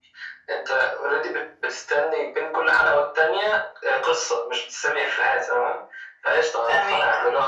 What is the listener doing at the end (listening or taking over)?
listening